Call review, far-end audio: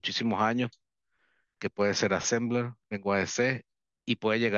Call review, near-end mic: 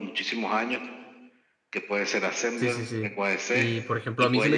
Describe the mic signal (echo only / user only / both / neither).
both